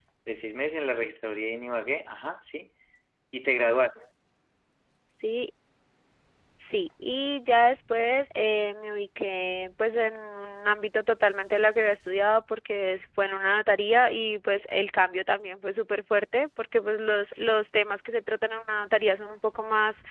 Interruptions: none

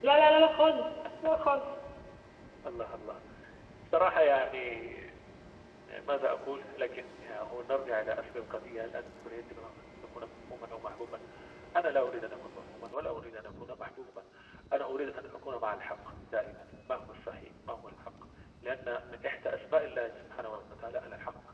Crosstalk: none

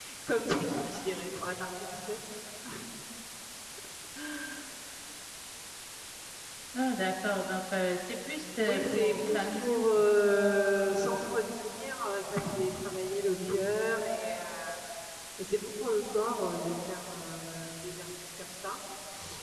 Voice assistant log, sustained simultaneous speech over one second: present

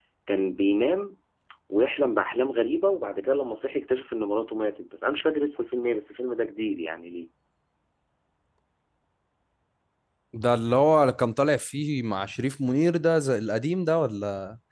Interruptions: none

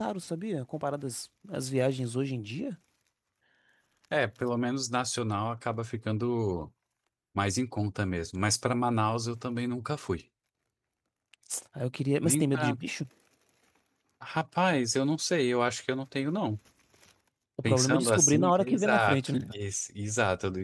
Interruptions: present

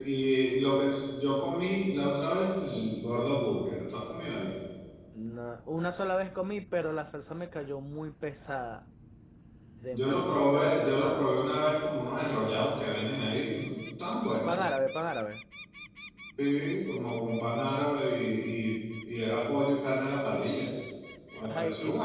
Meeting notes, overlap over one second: present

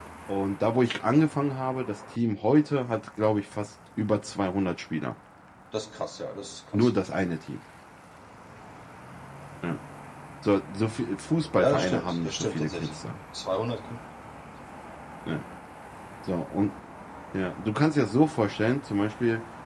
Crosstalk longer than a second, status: present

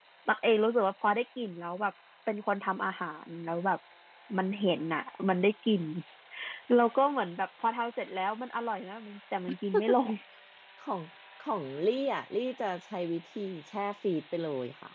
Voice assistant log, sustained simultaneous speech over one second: none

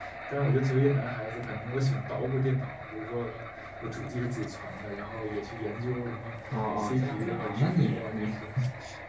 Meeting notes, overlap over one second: present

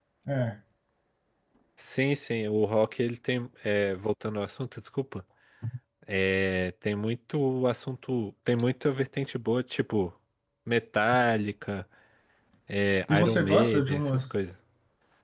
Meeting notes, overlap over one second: present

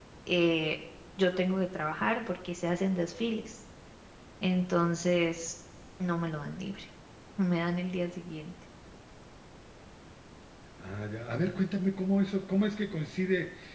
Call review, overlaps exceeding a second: none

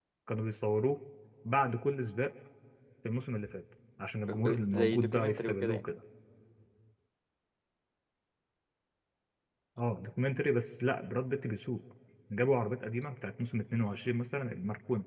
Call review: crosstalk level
present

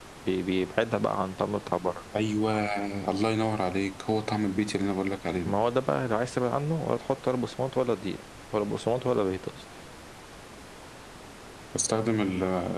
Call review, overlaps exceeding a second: none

